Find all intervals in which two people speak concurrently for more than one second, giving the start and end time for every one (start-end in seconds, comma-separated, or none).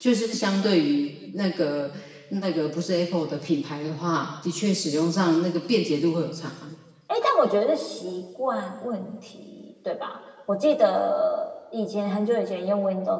none